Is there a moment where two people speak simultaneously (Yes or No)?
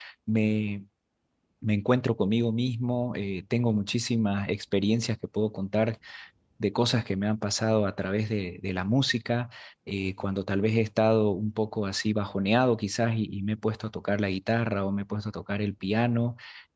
No